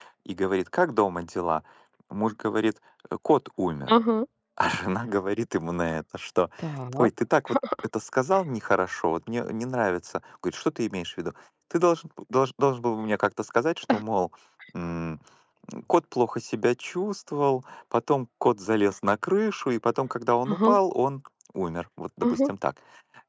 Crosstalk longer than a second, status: none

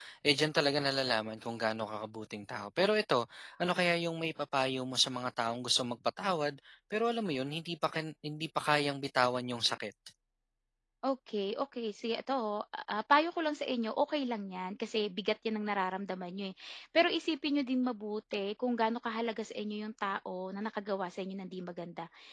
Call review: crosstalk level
none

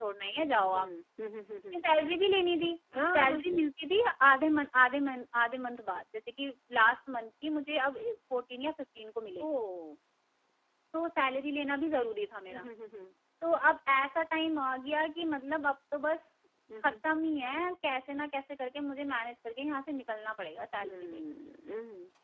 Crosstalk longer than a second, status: none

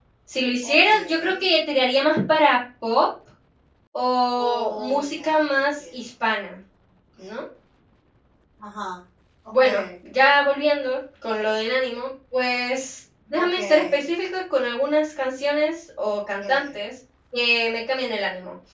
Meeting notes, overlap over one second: present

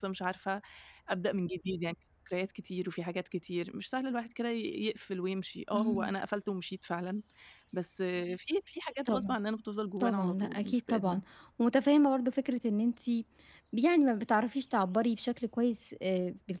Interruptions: present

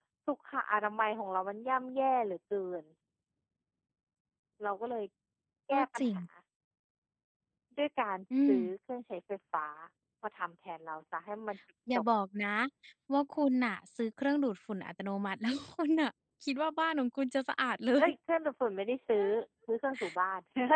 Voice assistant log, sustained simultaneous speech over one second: none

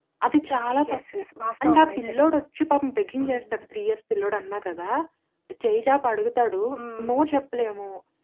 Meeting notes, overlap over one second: none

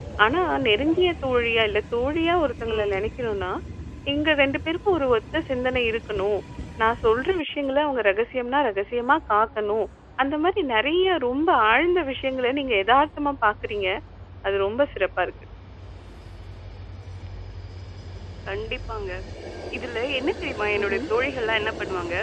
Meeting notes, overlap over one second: none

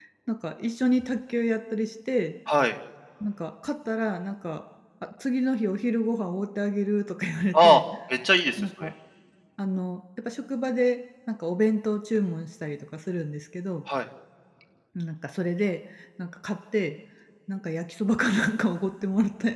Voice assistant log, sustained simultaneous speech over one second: none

